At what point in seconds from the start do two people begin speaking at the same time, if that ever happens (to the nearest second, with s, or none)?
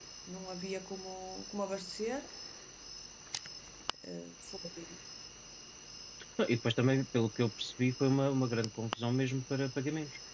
none